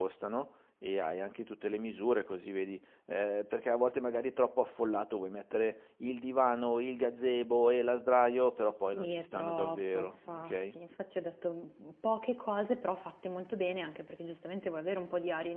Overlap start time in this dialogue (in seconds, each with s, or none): 8.9 s